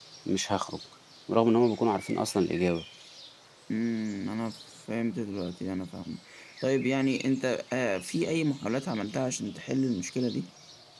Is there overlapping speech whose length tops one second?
No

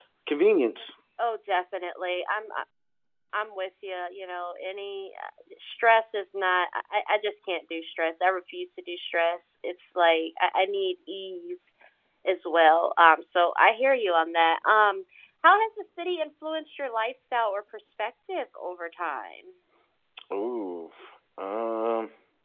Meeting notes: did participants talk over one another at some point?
No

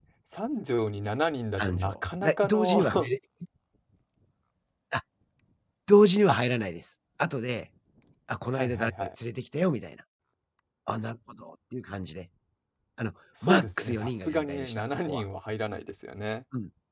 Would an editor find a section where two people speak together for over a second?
Yes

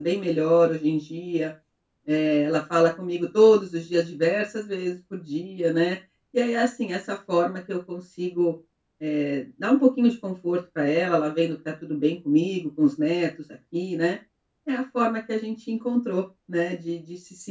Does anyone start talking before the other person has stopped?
No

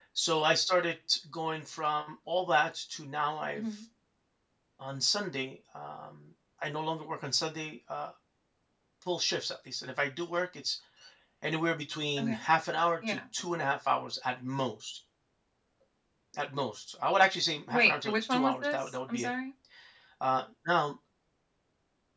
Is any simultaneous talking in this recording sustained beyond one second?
Yes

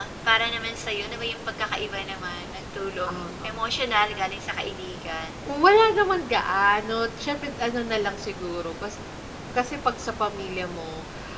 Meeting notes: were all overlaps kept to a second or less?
Yes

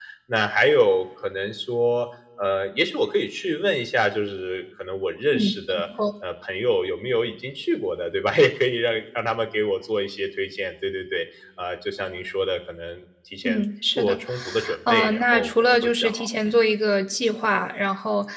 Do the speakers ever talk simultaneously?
Yes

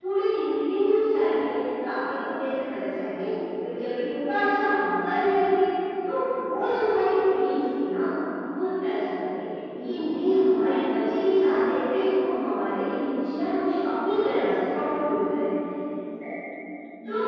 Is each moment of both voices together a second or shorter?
Yes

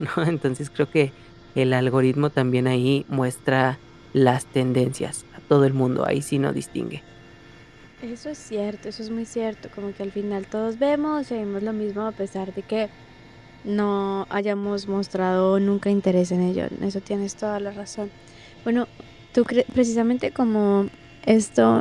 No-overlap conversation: Yes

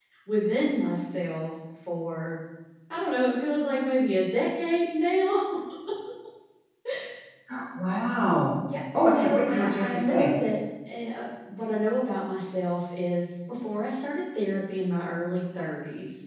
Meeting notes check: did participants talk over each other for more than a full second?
Yes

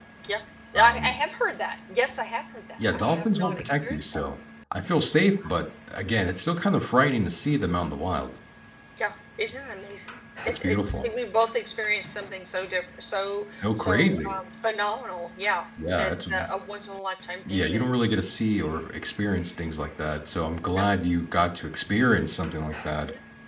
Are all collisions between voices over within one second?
No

